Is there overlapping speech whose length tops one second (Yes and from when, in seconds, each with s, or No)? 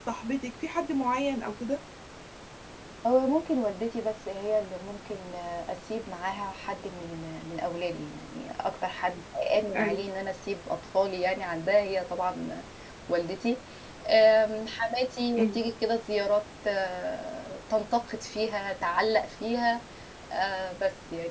No